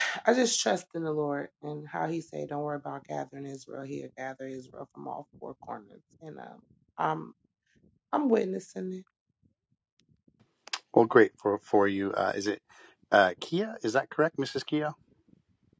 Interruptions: none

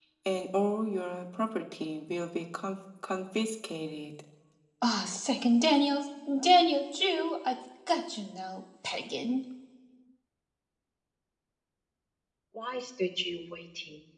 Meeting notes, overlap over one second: none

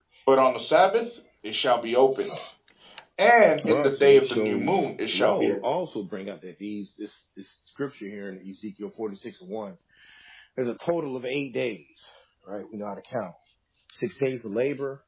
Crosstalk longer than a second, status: present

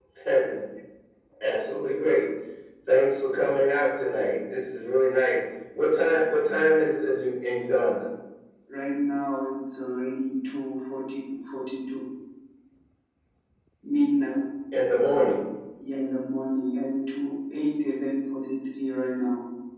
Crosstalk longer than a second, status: none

